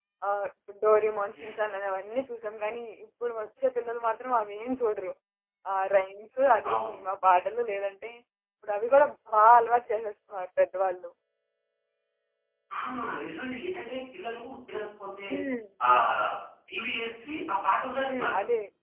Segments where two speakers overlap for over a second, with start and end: none

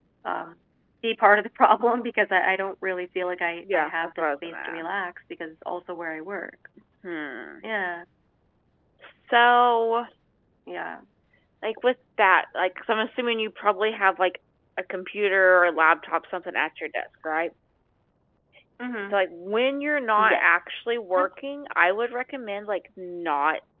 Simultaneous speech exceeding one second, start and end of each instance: 3.7-5.1

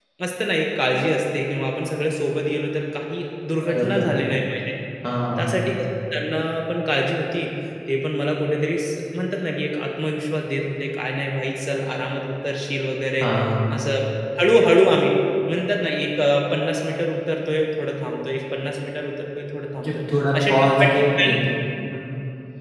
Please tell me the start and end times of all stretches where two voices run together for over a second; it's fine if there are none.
none

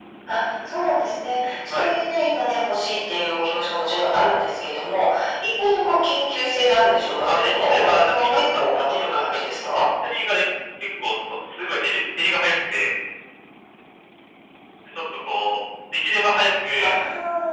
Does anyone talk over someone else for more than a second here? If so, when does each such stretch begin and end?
7.3-9.8

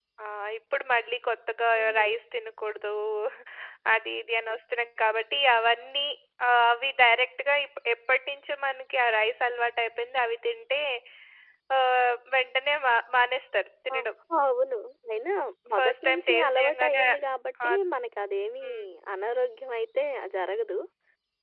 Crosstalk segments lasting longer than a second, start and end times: 15.7-17.0

